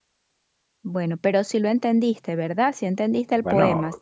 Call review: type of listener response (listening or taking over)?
taking over